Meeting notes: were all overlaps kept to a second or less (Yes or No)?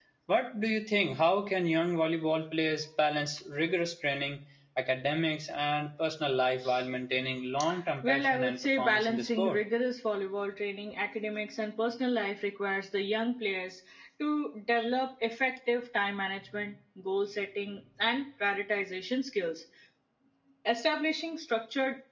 No